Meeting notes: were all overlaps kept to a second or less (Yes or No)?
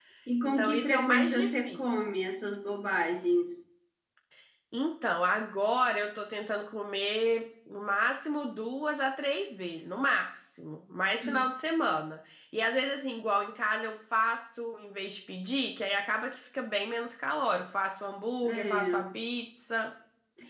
No